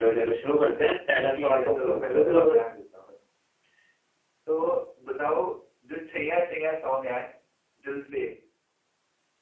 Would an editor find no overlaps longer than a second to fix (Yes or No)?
No